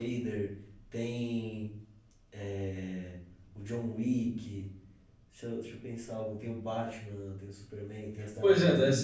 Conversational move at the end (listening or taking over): taking over